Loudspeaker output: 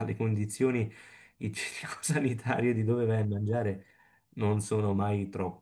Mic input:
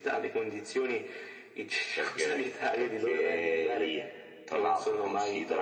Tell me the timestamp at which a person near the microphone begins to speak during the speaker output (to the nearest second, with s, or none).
2 s